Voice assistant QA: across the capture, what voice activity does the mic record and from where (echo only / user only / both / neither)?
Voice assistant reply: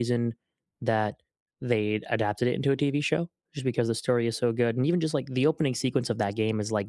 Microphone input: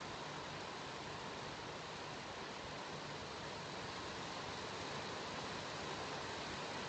neither